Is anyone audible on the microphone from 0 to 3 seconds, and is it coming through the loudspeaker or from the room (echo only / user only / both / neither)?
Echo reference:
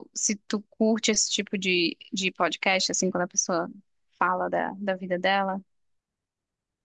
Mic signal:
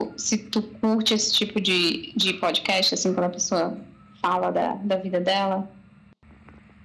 echo only